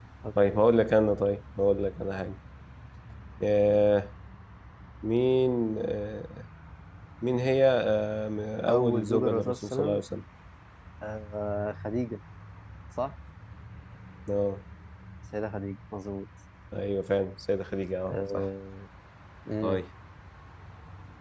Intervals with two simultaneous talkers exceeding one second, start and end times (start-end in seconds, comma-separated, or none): 8.7-10.0